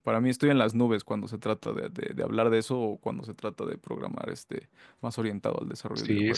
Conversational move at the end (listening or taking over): taking over